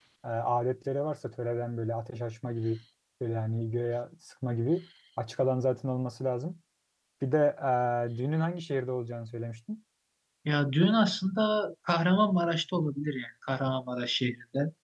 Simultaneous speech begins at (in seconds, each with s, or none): none